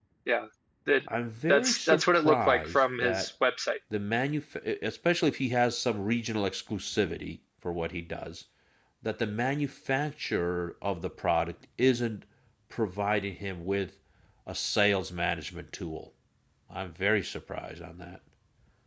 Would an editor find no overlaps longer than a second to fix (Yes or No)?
No